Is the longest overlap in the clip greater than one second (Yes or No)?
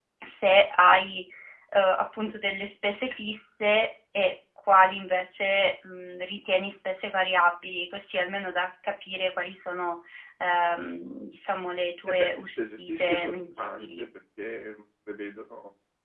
Yes